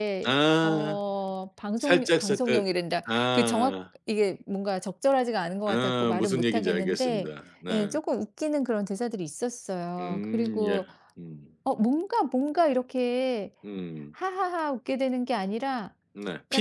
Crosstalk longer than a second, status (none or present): present